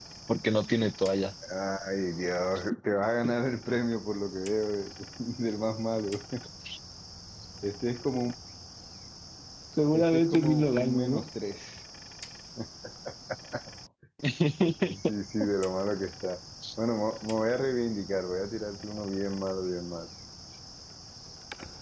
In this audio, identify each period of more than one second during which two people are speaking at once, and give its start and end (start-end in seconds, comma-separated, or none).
9.9-11.2